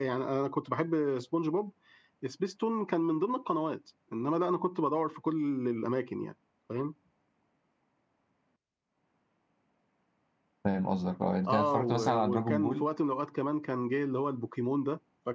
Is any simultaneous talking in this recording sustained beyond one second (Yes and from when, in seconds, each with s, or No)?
Yes, from 11.5 s